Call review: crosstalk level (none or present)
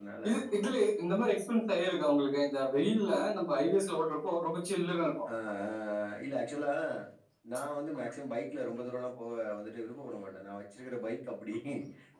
none